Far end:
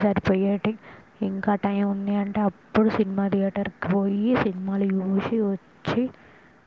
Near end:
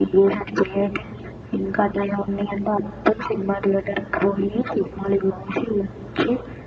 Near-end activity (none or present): none